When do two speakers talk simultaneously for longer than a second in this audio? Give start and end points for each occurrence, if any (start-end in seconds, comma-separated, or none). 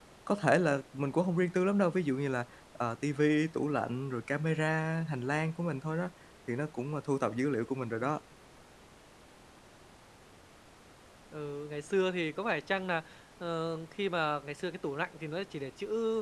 none